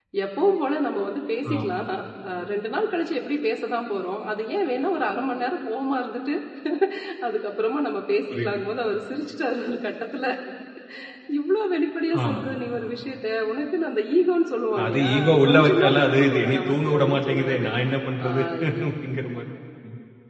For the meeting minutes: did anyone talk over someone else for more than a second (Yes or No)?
Yes